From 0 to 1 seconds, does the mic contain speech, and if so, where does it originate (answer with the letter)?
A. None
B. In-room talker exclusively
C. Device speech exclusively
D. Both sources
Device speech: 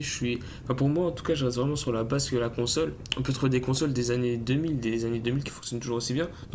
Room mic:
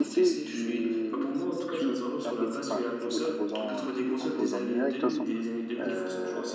D